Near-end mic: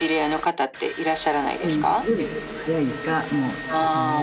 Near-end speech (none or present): present